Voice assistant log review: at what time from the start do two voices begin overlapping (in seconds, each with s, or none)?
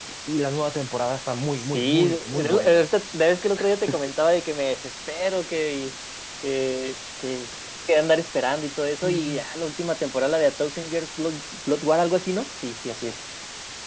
1.6 s